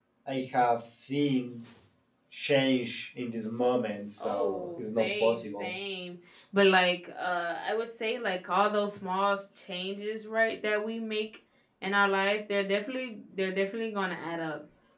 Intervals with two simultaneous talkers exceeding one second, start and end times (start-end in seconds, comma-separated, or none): 4.2-5.7